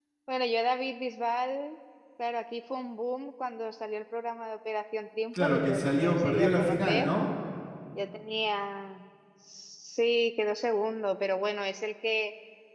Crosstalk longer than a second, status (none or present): present